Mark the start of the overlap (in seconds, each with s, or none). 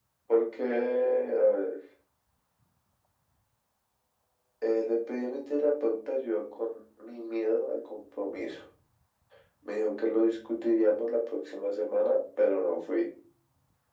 none